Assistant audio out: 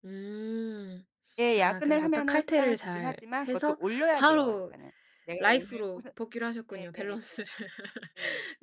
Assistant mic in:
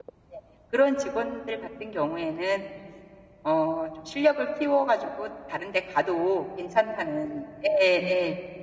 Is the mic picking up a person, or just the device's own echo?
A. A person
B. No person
A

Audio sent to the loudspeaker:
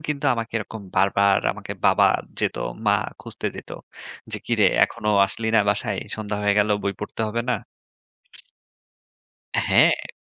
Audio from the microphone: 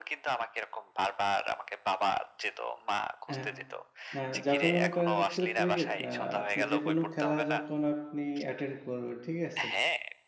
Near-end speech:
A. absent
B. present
B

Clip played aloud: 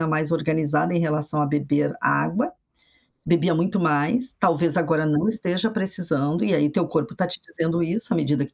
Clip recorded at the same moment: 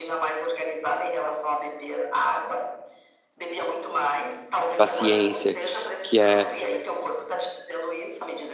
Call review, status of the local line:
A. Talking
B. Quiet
A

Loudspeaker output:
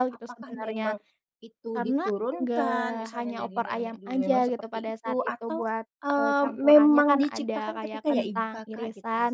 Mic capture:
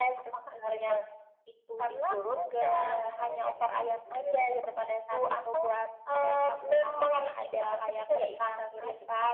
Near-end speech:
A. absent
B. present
A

